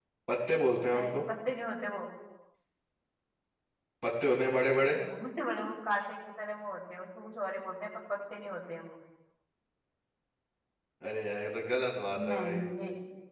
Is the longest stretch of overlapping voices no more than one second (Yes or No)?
Yes